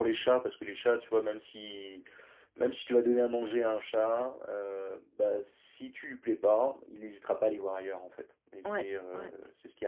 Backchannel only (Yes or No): Yes